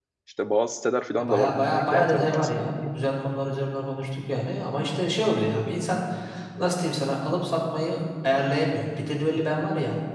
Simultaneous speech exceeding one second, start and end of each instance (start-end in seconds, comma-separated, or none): 1.2-2.8